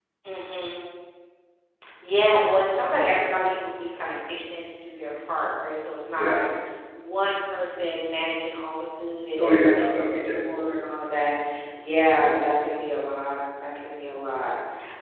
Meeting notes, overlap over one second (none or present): present